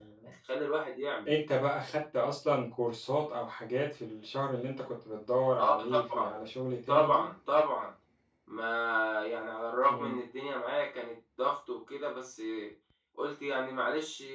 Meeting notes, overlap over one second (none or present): none